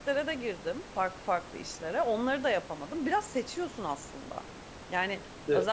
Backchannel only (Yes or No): Yes